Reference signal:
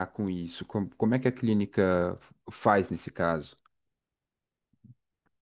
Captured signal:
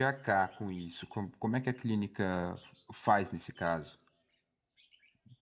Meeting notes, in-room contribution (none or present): none